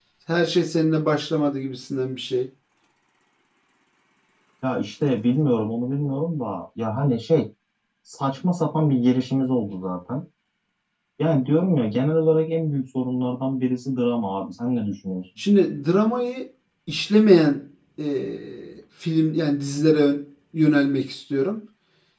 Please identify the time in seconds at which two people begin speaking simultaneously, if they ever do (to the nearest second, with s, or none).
none